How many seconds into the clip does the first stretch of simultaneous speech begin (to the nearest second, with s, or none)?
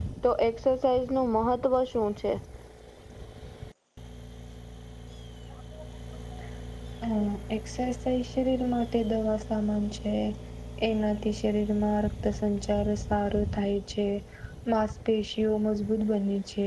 none